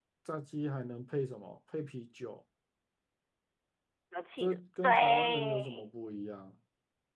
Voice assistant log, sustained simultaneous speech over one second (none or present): present